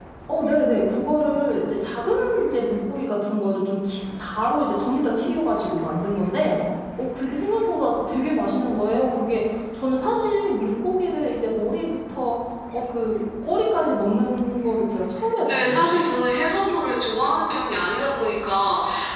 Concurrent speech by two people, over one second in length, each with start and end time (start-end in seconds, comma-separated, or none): none